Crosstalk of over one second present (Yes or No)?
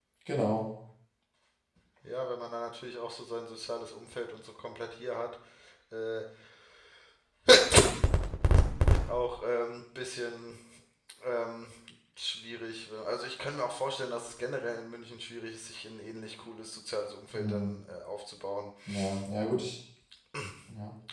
No